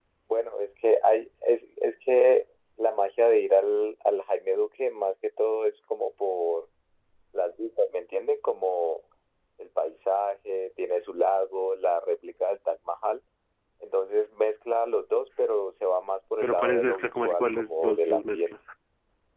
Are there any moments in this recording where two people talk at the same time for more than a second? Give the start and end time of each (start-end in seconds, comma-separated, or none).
16.4-18.5